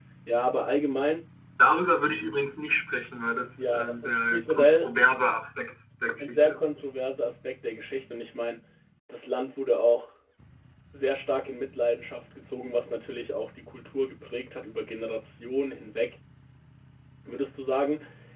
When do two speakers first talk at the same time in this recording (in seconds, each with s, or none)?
3.7 s